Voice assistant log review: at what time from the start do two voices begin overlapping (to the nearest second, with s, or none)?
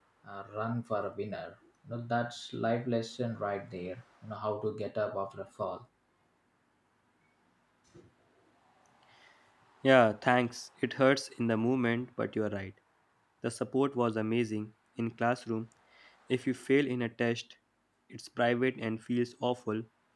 none